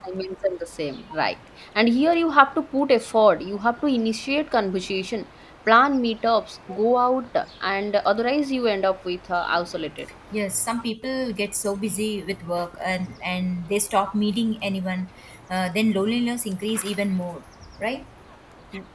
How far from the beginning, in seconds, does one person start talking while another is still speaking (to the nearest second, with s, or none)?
none